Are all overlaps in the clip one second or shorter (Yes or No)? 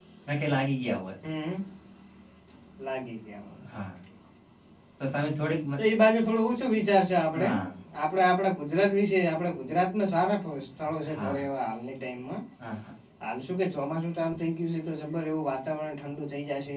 Yes